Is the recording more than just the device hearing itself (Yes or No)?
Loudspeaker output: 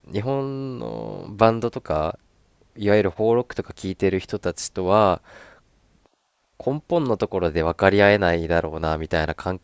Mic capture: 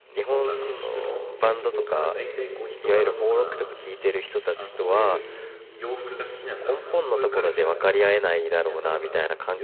Yes